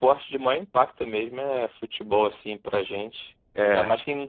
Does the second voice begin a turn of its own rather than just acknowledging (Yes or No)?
No